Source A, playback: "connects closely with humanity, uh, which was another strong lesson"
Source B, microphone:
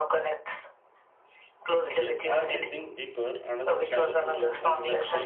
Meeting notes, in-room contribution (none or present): present